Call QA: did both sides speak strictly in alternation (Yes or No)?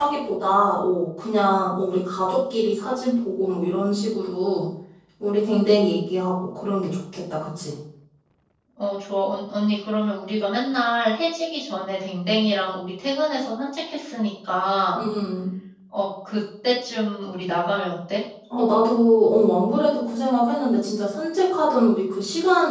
Yes